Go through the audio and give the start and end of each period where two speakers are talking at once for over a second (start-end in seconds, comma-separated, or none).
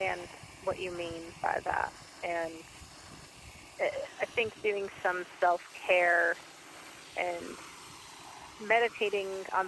none